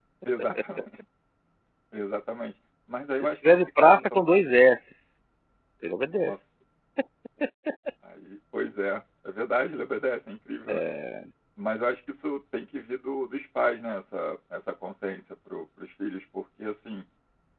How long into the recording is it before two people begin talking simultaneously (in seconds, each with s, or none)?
3.2 s